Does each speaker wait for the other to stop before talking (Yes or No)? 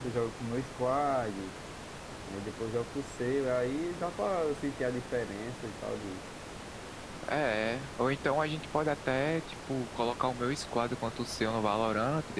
Yes